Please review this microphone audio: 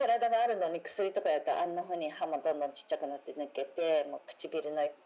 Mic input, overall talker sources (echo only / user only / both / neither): echo only